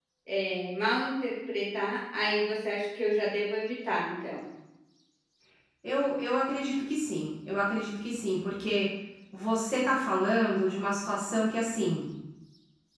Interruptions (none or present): none